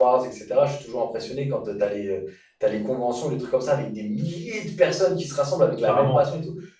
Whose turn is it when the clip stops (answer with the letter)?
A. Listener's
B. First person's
B